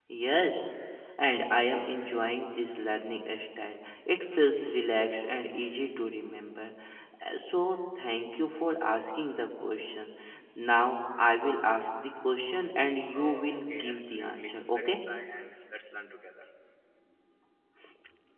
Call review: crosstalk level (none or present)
present